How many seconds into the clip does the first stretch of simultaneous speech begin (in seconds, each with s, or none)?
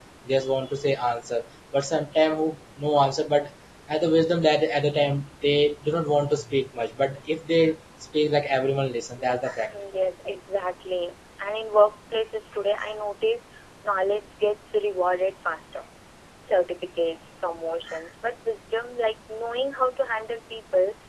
none